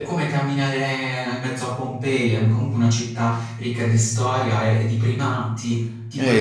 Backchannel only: No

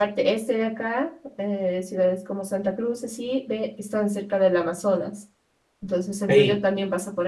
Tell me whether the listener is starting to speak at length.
No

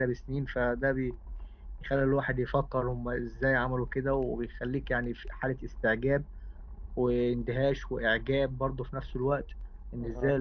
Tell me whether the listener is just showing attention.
Yes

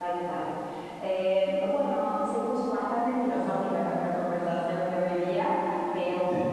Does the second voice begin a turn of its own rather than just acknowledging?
No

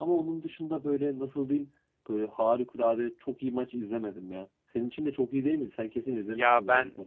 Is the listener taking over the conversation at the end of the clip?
Yes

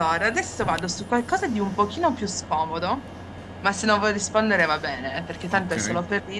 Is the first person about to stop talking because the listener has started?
No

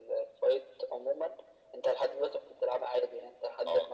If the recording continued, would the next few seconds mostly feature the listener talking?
No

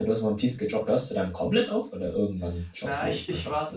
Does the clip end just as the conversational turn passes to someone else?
Yes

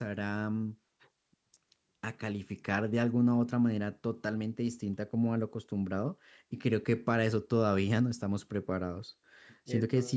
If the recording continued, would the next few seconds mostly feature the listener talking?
No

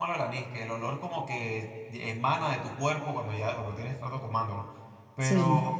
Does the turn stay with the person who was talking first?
Yes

